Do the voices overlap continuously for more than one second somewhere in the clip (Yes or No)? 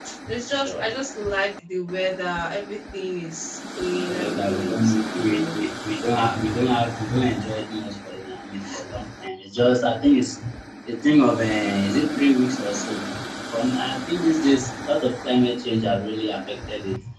Yes